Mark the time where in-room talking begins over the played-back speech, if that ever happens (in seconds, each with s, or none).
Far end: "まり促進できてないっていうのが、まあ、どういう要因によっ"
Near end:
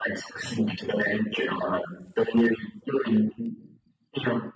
none